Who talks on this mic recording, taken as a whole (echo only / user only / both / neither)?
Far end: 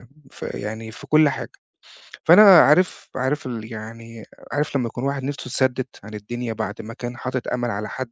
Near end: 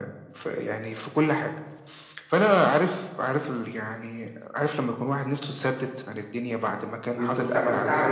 both